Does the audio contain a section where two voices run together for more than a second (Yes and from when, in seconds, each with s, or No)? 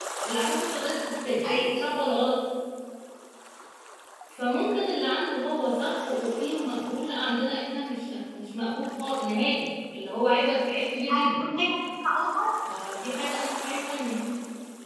No